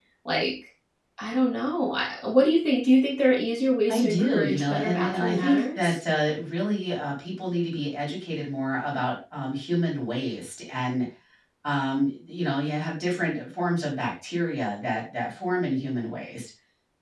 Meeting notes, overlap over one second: present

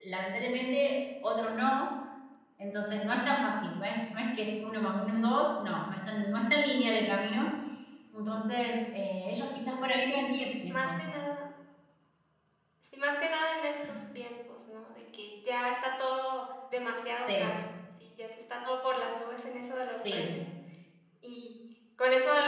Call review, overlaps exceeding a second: none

